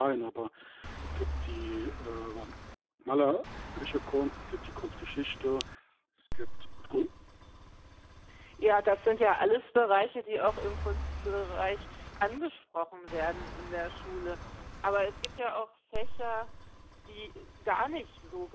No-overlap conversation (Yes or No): Yes